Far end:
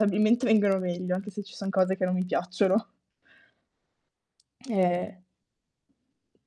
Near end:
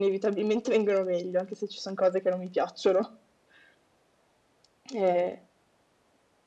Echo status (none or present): present